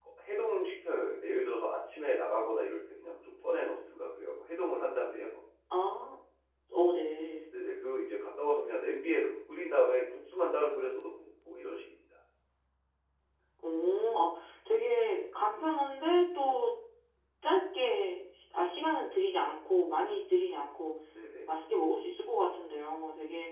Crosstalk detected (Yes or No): No